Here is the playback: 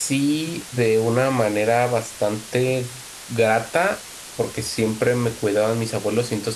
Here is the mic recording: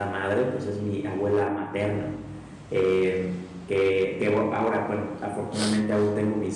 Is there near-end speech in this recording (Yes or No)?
Yes